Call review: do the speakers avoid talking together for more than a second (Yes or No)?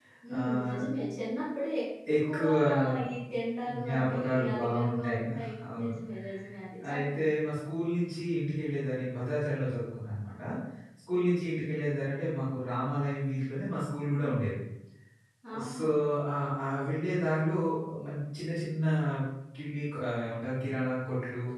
No